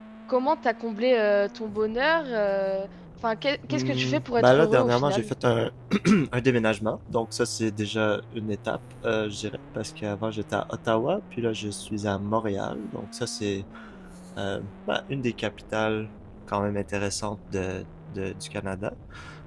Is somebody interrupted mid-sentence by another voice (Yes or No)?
Yes